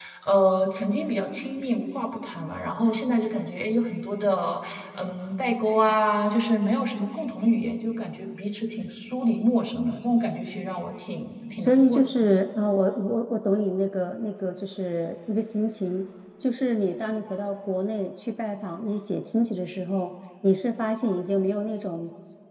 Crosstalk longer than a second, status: none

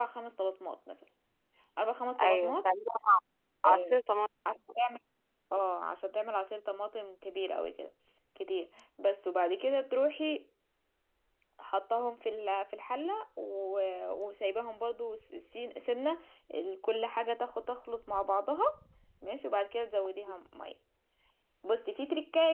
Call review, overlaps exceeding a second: none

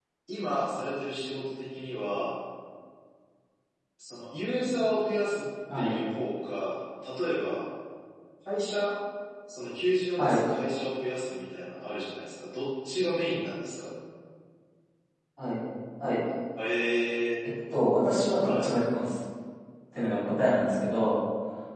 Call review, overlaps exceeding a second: none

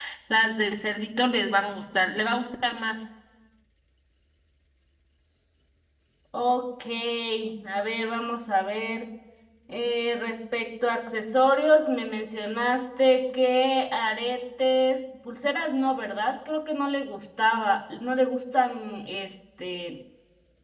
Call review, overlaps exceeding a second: none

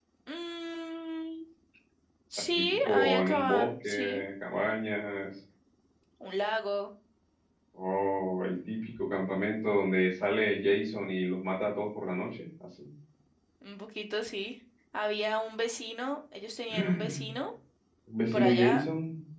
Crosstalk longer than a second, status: present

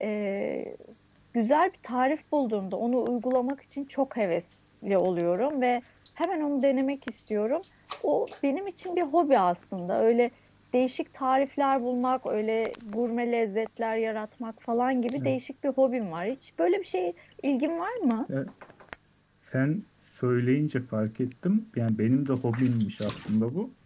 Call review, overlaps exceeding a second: none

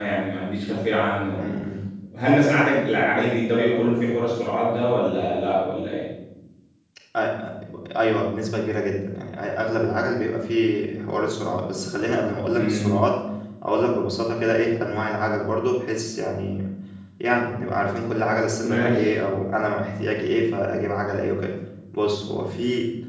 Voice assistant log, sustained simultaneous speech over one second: none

